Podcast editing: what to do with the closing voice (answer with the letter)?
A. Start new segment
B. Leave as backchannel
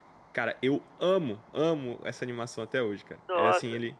B